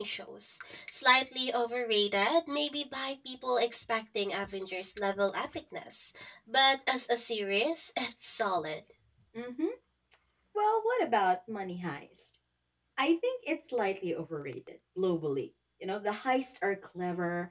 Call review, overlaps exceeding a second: none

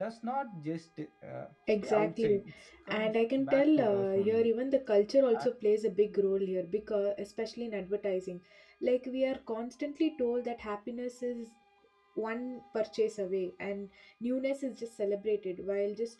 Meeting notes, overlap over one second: present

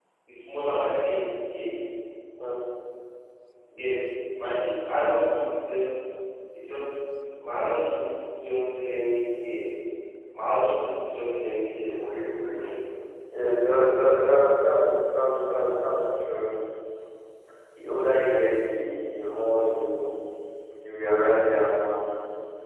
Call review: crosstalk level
none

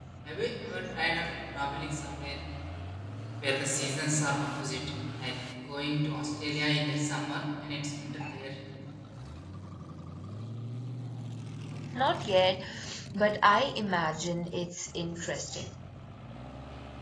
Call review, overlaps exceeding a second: none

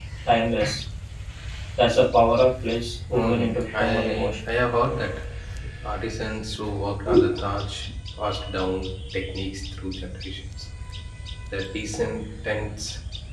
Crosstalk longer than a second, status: present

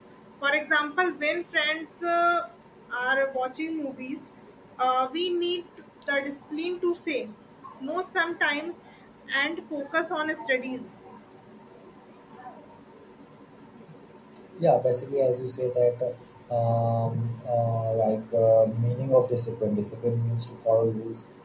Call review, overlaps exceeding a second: none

